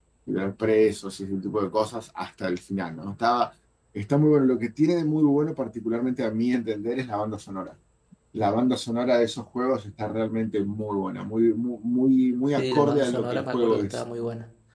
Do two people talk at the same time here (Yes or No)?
Yes